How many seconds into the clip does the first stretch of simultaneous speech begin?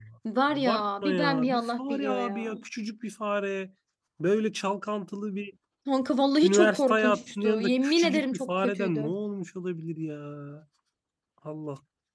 0.5 s

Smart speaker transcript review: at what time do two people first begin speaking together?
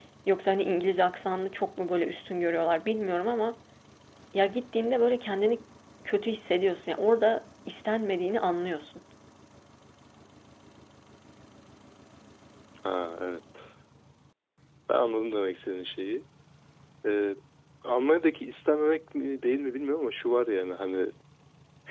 none

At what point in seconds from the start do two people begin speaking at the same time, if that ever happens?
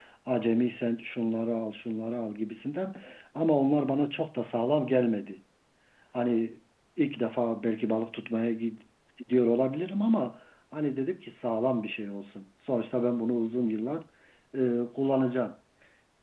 none

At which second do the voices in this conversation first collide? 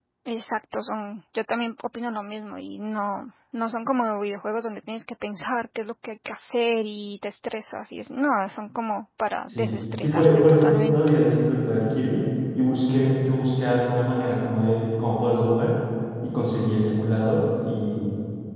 9.5 s

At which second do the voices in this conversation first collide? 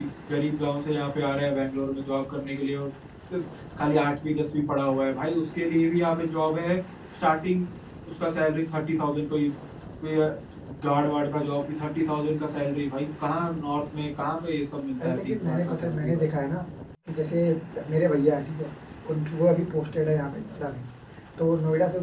15.0 s

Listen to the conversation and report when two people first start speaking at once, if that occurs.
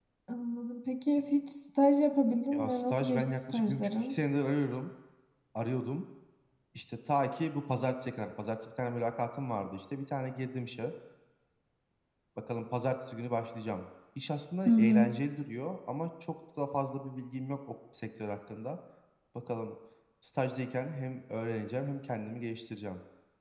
2.5 s

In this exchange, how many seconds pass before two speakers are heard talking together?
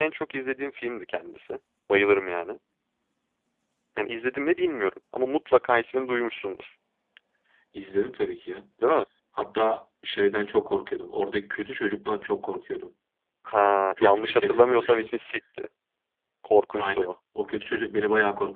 14.0 s

